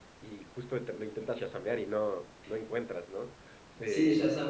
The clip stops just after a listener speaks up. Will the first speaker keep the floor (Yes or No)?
No